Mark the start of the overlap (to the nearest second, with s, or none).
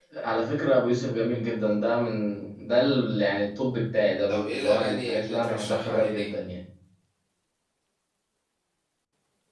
4 s